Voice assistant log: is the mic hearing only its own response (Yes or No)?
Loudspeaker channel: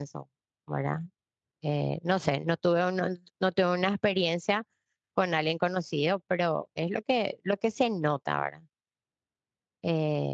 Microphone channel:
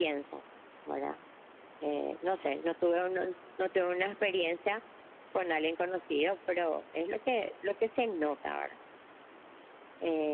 Yes